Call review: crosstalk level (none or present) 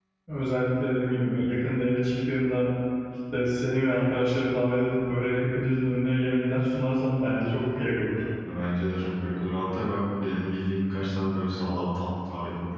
none